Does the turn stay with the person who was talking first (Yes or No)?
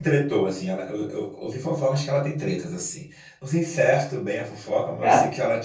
Yes